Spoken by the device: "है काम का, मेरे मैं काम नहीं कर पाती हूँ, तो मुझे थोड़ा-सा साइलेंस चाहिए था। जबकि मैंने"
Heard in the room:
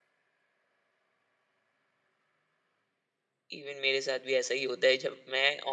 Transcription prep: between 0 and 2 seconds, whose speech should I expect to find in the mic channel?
neither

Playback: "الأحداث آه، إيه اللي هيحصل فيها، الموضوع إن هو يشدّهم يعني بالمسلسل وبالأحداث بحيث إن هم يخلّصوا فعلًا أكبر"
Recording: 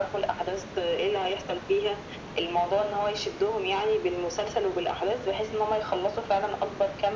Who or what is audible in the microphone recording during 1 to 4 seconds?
echo only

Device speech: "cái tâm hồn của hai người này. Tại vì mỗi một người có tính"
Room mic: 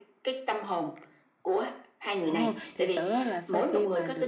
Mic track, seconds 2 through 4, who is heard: both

